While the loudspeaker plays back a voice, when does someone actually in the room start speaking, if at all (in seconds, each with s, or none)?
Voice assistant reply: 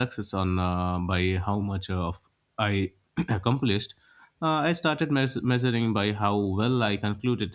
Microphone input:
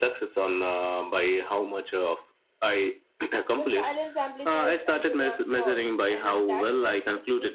3.5 s